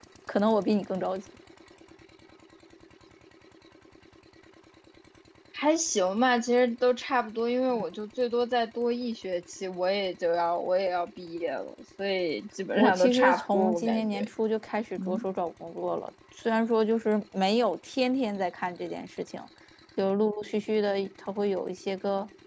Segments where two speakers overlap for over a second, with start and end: 12.8-14.3

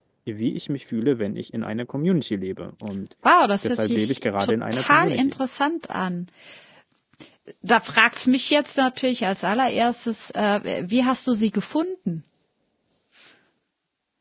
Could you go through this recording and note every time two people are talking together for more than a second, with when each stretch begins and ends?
3.6-5.3

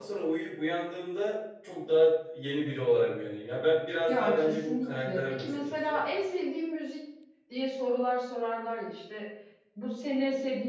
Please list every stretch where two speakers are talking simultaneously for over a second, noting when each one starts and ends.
4.1-6.0

